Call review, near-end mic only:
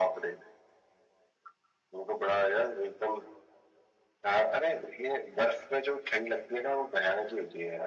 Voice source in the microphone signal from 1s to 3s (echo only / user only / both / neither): echo only